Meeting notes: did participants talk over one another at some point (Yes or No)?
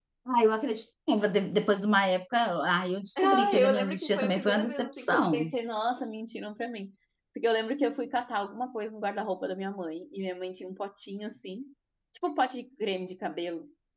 Yes